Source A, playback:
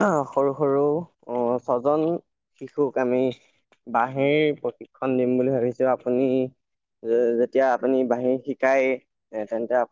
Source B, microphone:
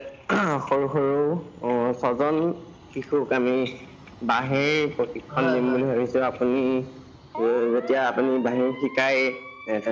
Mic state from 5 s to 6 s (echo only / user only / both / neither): both